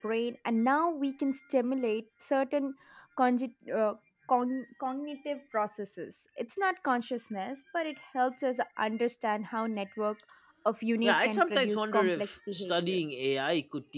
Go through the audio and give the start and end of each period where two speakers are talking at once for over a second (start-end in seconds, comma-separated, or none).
11.0-13.0